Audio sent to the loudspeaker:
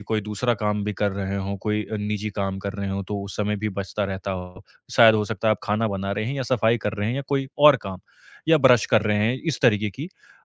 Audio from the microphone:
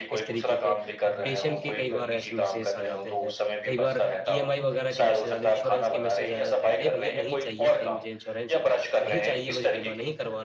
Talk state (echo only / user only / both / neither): both